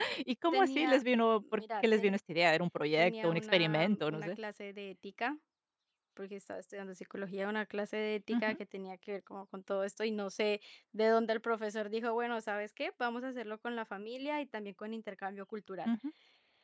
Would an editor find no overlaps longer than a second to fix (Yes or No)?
No